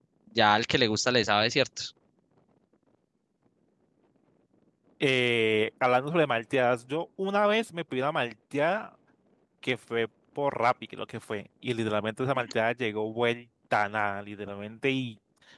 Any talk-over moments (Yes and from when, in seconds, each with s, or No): No